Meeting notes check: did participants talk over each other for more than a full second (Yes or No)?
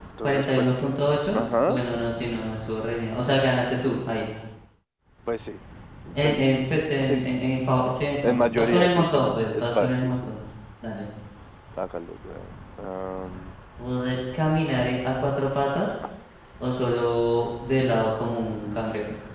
Yes